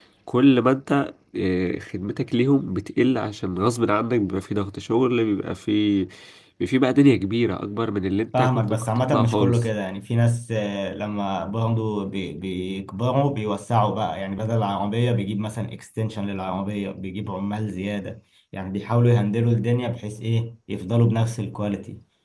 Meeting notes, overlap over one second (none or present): present